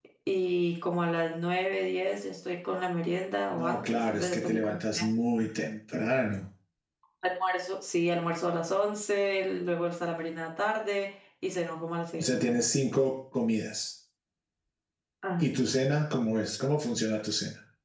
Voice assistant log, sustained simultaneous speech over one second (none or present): present